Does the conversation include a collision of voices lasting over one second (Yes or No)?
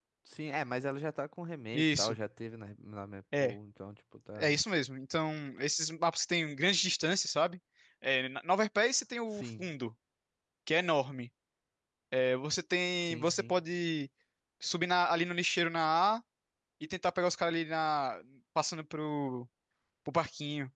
No